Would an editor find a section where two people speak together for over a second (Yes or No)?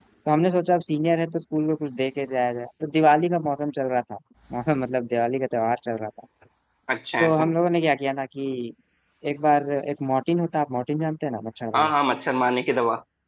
No